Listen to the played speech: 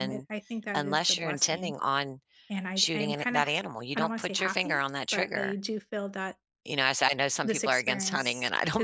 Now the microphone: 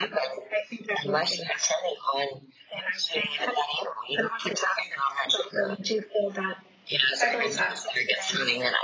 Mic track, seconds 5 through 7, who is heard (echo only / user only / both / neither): echo only